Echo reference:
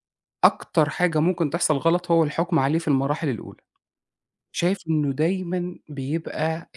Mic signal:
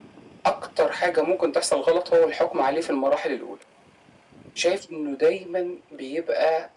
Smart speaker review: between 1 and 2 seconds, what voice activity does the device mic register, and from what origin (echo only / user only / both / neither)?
echo only